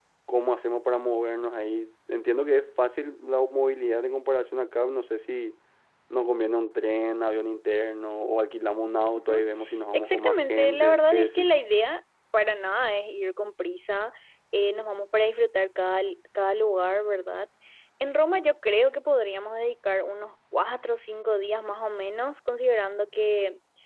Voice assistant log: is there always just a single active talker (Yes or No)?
No